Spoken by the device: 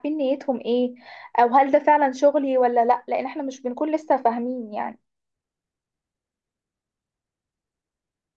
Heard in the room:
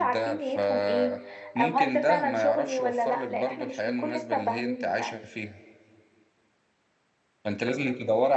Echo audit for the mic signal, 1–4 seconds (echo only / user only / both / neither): both